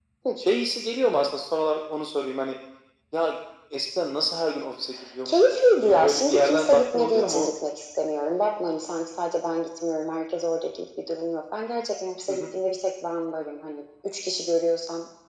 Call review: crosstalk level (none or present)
present